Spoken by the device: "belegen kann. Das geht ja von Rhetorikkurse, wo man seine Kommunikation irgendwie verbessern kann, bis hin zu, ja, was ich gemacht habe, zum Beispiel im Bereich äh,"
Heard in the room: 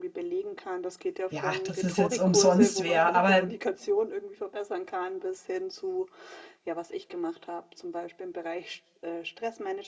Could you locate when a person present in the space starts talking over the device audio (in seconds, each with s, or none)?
1.3 s